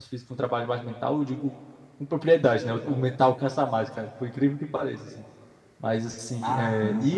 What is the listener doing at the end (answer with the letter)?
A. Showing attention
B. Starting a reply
A